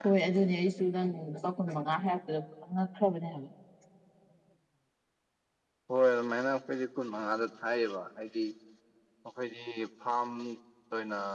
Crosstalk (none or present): none